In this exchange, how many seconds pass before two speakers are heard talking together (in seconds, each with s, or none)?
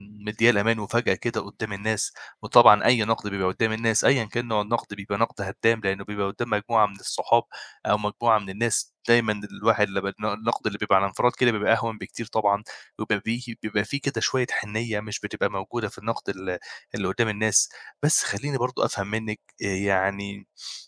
none